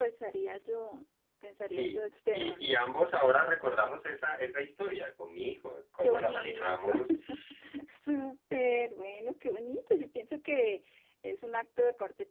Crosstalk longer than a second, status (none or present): present